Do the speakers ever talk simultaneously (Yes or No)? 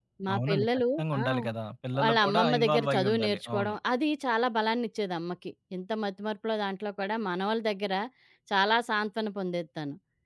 Yes